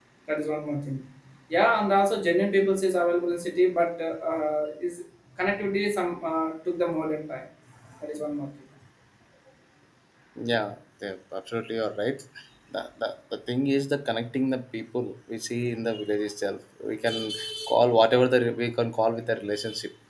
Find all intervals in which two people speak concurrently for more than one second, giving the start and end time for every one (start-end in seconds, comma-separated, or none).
none